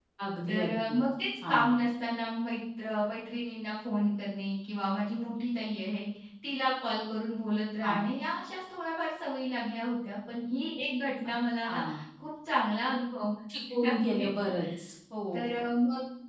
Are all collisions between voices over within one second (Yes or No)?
Yes